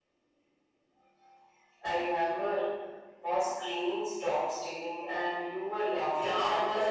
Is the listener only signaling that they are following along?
No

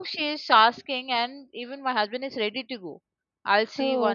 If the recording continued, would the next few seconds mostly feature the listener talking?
No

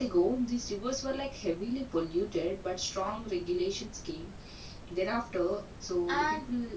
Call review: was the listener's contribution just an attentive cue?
Yes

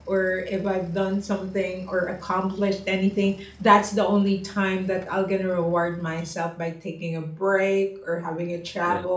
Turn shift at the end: No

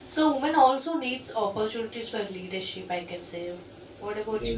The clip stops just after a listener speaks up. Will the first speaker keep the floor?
No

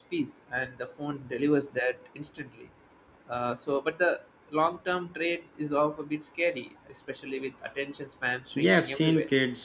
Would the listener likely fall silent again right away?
No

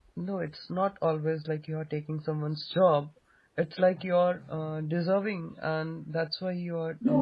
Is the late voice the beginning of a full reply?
Yes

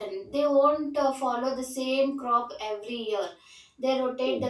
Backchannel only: Yes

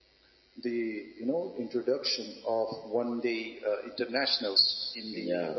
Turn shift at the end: No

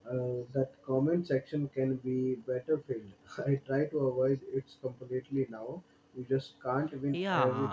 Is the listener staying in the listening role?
No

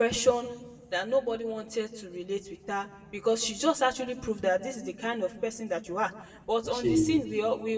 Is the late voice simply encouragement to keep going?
Yes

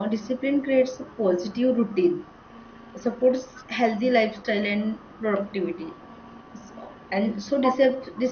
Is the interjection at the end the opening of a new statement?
No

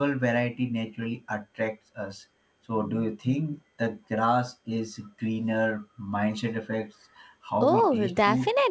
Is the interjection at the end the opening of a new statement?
Yes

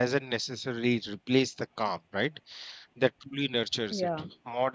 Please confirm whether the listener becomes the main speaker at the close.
No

